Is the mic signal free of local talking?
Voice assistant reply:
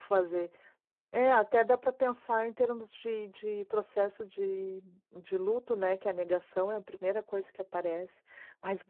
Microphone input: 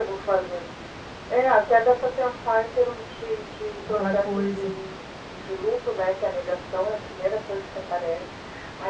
No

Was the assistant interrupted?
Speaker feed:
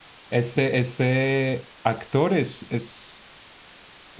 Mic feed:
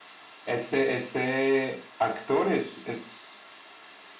No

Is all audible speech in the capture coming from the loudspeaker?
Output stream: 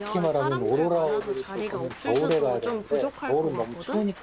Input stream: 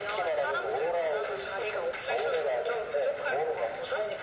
Yes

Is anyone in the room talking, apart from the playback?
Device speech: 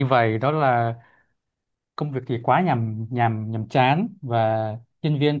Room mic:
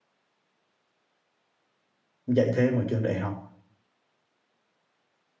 Yes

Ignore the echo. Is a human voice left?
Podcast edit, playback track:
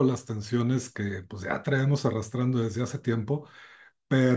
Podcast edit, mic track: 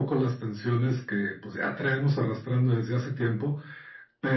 No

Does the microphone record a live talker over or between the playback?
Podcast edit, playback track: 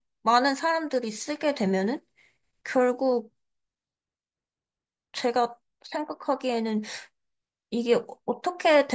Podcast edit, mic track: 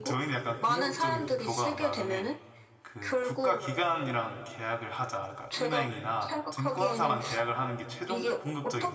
Yes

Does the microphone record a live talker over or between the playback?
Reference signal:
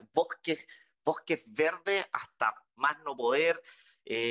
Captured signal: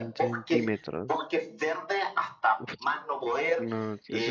Yes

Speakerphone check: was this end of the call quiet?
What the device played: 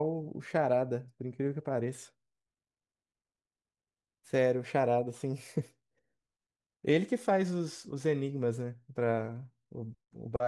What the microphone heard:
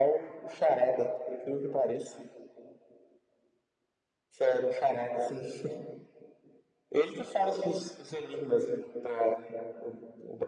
Yes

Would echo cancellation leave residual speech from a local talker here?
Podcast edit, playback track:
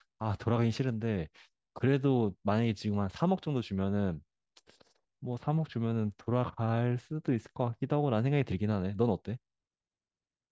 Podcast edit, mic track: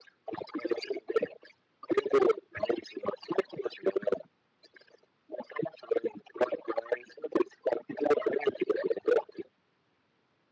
No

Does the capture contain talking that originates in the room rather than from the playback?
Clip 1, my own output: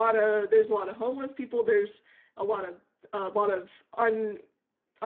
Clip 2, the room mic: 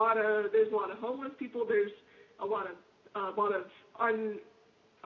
No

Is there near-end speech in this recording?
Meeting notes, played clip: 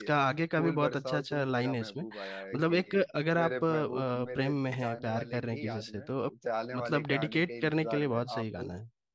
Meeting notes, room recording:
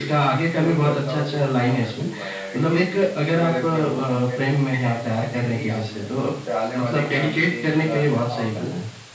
No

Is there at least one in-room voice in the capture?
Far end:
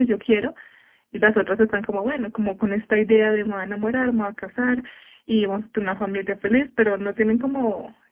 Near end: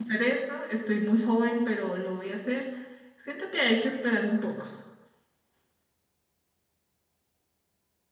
Yes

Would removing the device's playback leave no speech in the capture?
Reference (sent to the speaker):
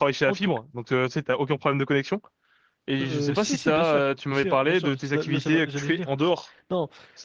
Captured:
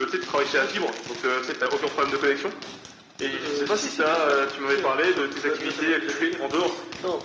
Yes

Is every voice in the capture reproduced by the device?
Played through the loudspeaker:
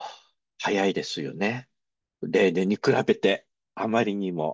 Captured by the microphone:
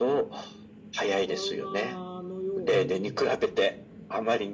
No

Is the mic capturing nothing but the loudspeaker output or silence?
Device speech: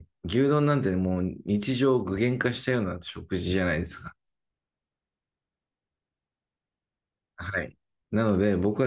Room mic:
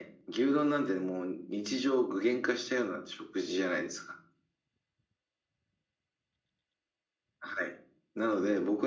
Yes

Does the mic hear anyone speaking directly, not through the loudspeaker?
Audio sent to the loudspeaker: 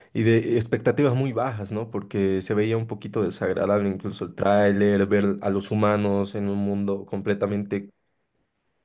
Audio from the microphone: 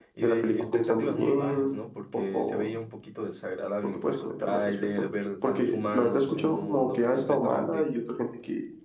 Yes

